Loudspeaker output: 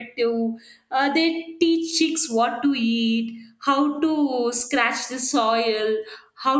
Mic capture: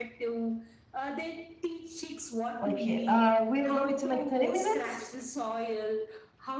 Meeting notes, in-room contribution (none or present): present